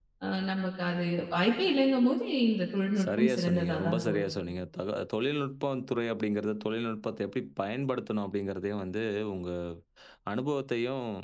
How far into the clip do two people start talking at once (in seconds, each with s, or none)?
3.0 s